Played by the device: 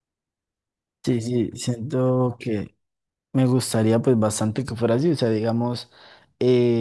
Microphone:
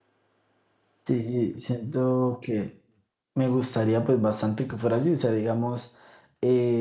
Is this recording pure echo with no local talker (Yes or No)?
Yes